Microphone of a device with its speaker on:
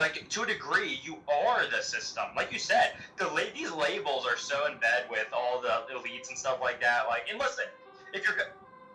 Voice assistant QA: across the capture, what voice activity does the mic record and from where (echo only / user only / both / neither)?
echo only